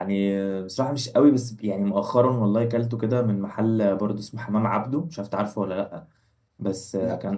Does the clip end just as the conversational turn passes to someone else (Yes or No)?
No